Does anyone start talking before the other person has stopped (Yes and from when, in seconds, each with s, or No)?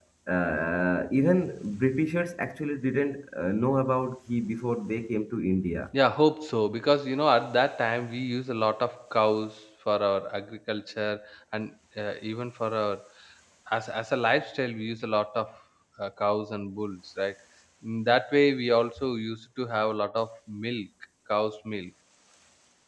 No